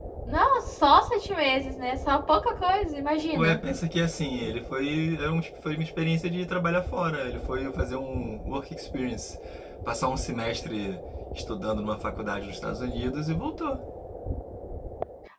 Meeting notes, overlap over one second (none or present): none